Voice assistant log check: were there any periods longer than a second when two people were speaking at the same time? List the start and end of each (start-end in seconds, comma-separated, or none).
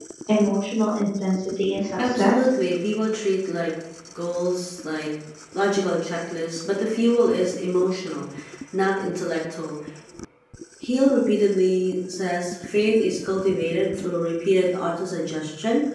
none